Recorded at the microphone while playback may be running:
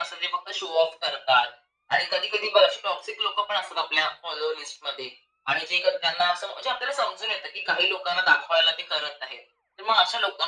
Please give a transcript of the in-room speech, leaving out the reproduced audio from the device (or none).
none